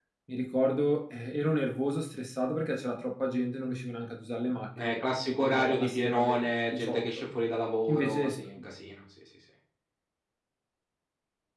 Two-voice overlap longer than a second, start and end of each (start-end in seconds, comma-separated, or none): 4.8-7.0